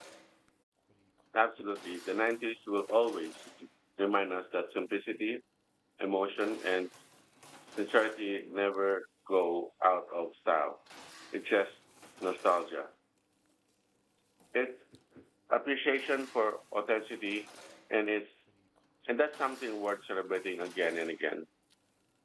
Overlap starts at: none

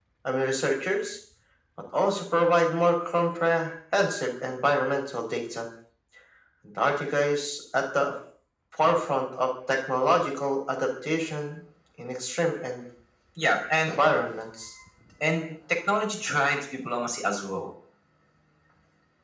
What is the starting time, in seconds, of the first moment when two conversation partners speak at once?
none

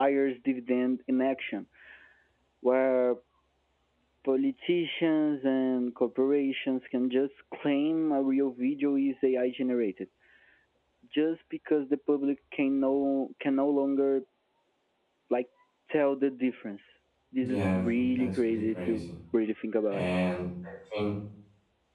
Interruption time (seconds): 17.4 s

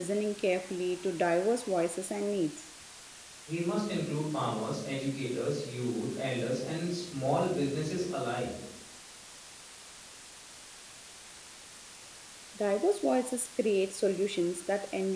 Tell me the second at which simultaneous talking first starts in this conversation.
none

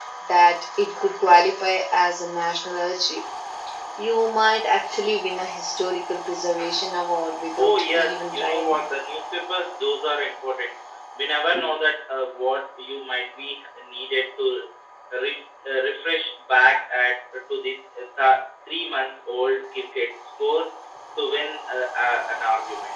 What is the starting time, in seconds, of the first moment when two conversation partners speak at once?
7.6 s

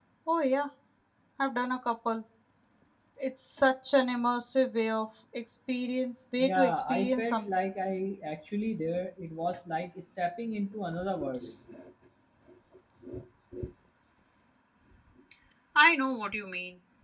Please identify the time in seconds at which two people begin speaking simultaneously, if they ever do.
6.4 s

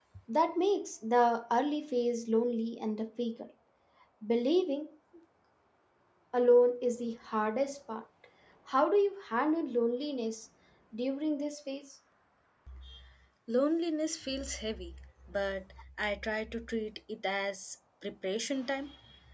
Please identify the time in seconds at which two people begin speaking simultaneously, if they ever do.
none

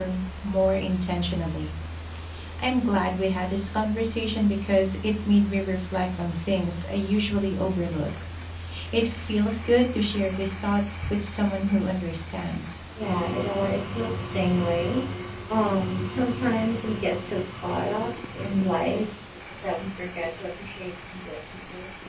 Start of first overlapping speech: none

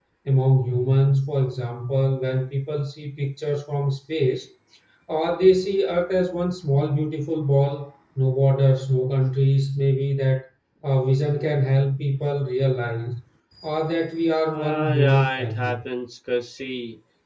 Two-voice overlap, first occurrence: 14.5 s

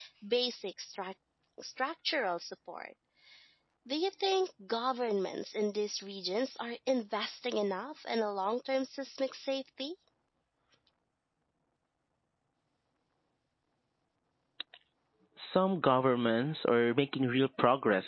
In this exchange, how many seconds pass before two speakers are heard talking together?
none

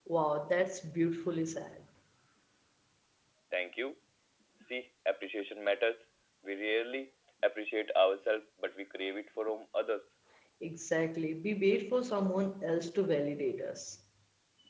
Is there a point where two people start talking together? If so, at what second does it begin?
none

